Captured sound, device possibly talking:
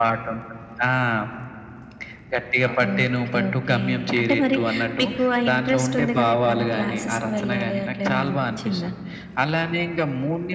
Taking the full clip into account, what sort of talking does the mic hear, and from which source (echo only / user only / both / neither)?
echo only